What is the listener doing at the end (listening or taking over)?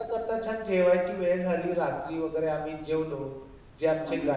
listening